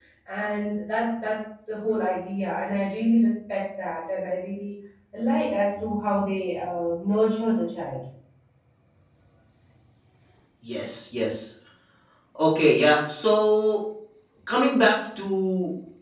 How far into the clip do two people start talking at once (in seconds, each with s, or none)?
none